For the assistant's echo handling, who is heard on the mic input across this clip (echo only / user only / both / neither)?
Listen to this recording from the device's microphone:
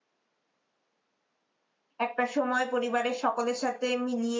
user only